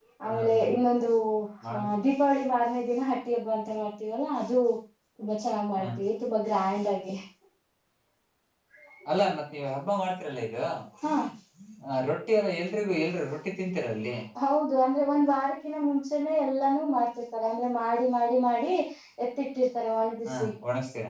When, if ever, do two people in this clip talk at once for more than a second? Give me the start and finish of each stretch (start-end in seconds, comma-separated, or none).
none